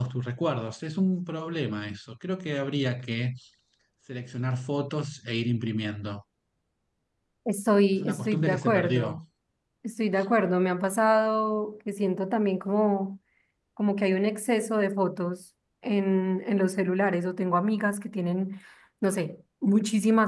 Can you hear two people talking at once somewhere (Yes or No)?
Yes